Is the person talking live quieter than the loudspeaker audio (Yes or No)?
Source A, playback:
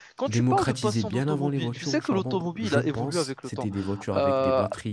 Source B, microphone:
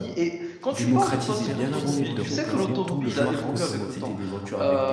Yes